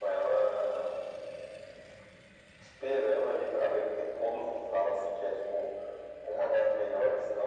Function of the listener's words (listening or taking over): listening